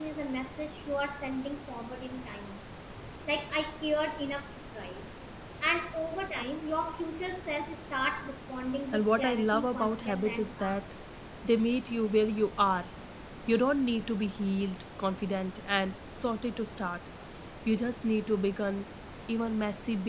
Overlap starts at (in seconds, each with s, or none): 8.9 s